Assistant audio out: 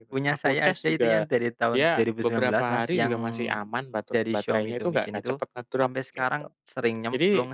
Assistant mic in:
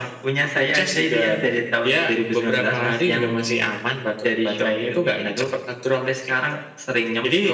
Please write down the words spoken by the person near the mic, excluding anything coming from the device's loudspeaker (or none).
none